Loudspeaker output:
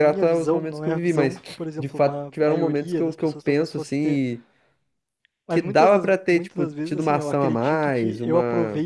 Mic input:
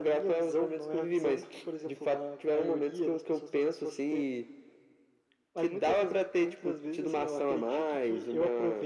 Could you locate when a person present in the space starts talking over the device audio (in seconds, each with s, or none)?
none